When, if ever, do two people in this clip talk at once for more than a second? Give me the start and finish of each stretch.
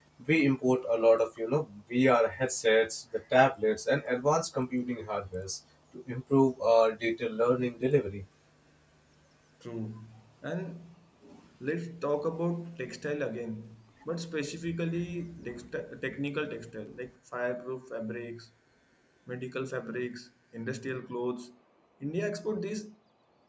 none

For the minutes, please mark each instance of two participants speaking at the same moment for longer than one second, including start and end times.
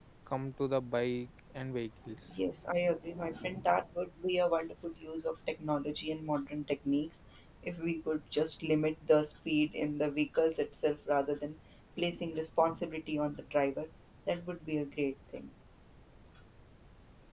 none

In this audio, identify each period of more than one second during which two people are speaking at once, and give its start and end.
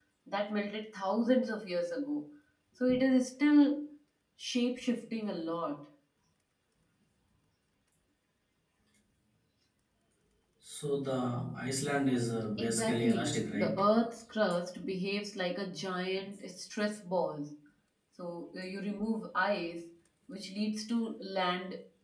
12.6-13.8

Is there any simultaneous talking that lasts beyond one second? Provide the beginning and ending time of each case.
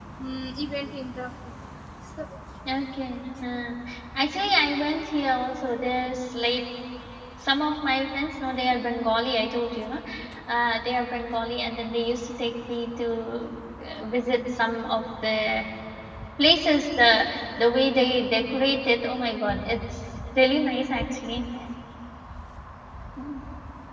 none

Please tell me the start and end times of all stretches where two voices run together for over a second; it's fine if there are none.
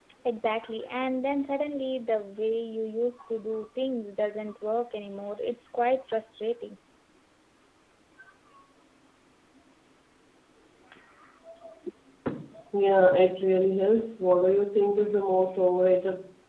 none

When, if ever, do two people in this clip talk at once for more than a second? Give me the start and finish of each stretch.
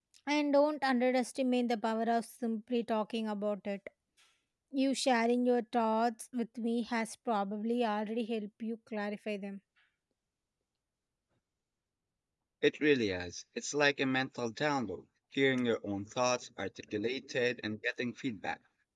none

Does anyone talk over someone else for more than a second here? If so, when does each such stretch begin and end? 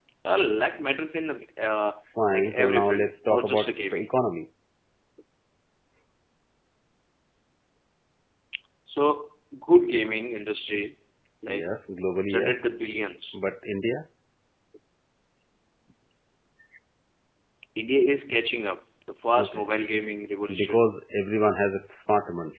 2.3-4.0

